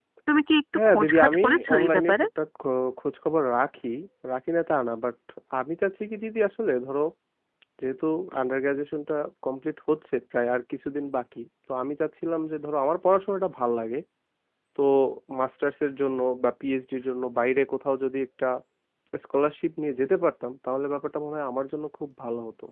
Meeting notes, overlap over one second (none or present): present